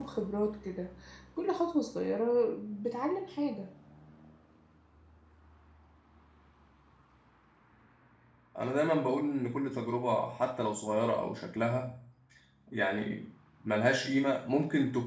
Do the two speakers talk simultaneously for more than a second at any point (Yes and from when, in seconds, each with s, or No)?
No